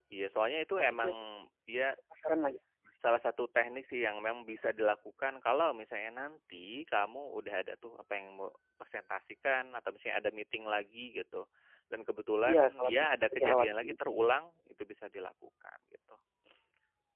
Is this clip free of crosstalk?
No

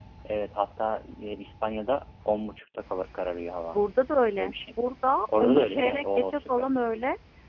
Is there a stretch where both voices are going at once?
Yes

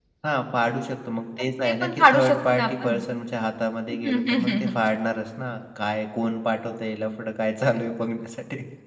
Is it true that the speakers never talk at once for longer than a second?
No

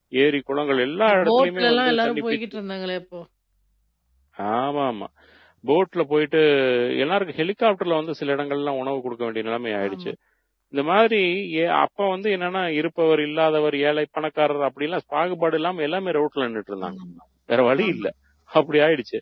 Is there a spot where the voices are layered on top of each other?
Yes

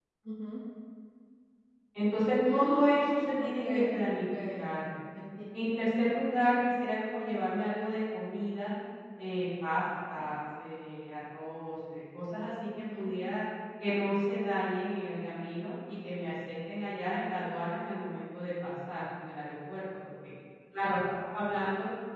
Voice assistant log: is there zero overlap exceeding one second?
No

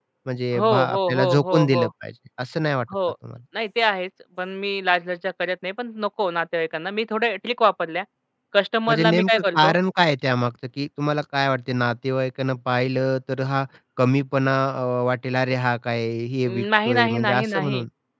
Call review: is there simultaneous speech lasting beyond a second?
Yes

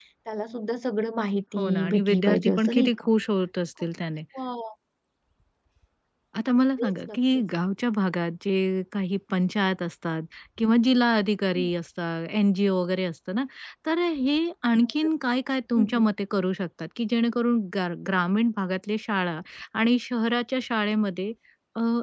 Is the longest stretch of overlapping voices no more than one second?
No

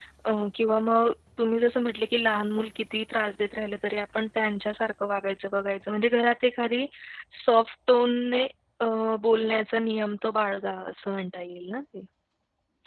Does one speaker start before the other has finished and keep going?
No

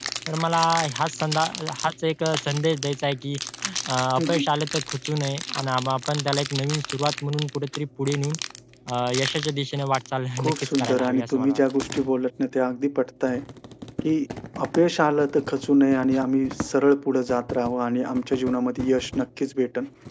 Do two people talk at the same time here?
Yes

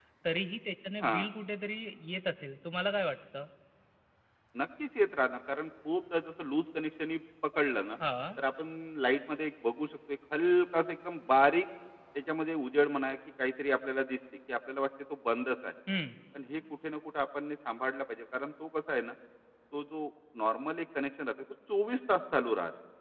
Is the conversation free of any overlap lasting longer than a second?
Yes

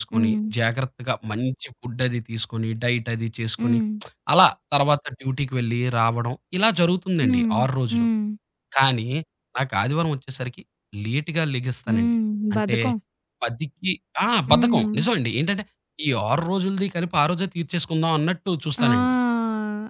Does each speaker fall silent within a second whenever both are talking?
Yes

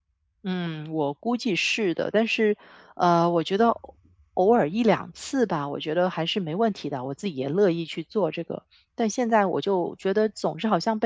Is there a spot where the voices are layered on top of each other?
No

